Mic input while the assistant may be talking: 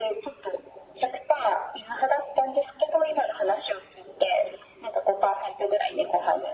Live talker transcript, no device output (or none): none